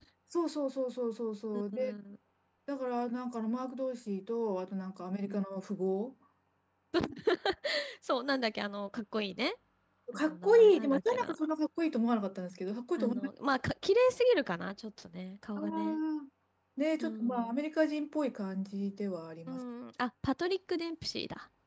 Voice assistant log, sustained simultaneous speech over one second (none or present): present